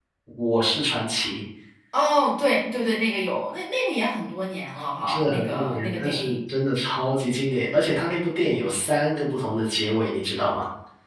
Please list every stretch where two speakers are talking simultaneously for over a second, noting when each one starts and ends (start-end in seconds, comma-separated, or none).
5.1-6.4